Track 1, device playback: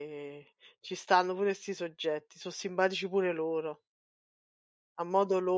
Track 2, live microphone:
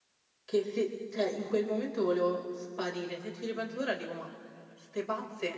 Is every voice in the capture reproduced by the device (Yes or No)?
No